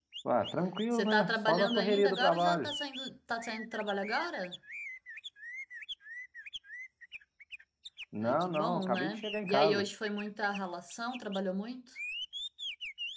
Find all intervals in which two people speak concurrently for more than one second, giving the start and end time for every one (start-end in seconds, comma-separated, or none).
0.9-2.7, 8.2-9.8